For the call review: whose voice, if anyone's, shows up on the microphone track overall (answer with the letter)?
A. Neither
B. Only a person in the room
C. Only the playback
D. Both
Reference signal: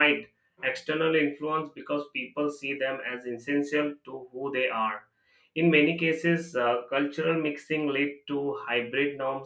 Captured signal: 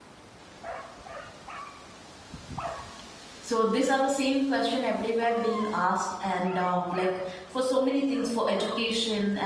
B